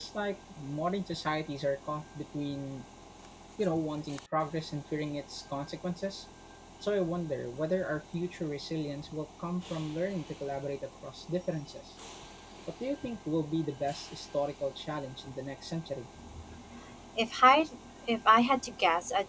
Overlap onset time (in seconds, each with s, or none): none